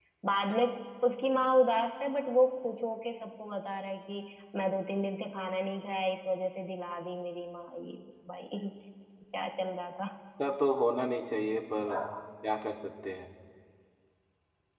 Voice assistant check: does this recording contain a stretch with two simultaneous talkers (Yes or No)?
No